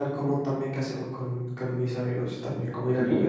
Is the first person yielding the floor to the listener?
No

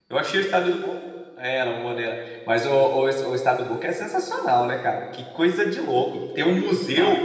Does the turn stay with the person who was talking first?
Yes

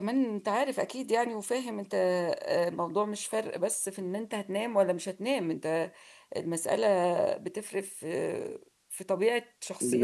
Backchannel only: Yes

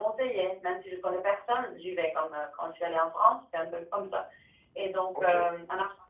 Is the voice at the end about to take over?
No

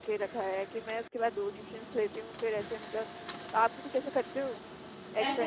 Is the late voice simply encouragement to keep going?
No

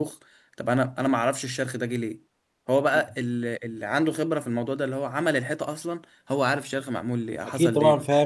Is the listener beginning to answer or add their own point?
Yes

